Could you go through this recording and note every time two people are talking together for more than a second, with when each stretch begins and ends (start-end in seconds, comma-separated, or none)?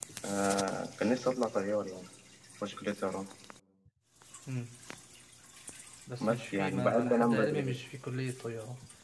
6.2-7.8